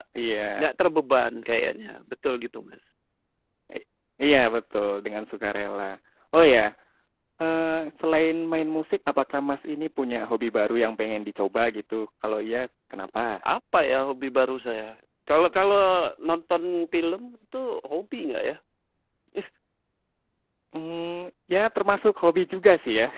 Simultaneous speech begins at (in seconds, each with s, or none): none